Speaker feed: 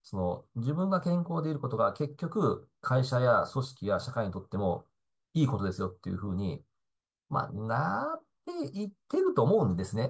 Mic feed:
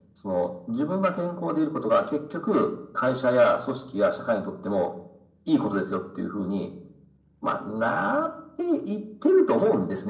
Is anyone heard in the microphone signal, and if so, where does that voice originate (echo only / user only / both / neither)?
echo only